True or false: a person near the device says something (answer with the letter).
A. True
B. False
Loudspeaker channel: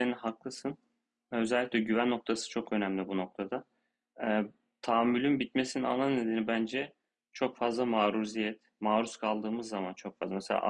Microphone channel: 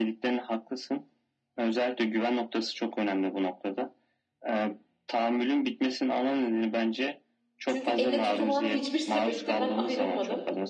A